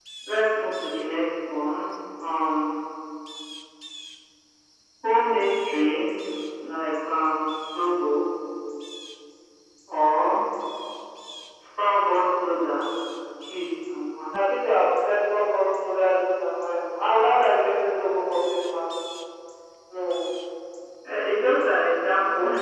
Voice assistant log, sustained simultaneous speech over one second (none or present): none